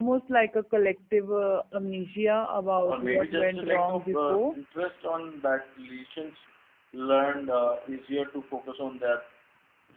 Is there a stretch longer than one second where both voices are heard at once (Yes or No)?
Yes